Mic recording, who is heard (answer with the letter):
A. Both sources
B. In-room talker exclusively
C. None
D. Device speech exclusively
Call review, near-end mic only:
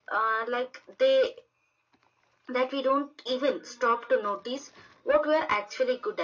D